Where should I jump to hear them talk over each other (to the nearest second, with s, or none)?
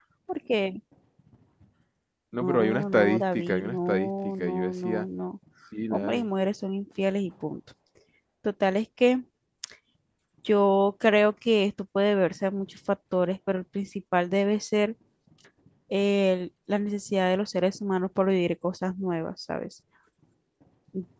2 s